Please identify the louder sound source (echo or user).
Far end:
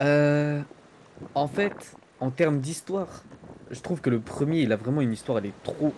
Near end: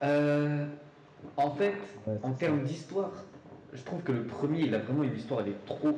echo